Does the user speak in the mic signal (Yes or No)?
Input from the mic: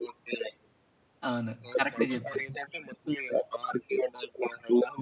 Yes